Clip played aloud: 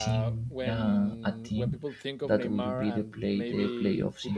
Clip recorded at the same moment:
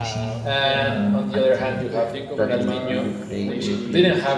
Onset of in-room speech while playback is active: 0.4 s

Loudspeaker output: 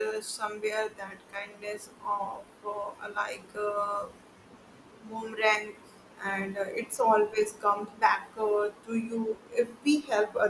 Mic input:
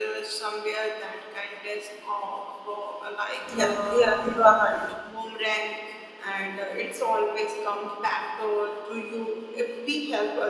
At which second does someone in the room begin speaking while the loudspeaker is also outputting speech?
3.6 s

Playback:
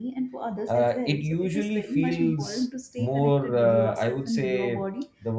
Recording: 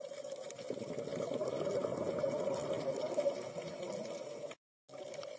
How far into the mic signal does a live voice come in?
none

